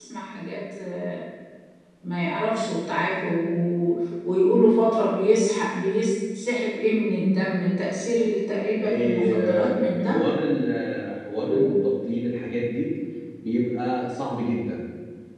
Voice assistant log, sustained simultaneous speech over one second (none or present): present